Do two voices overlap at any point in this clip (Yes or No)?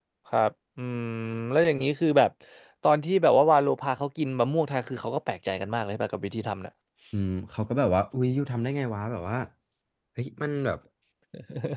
No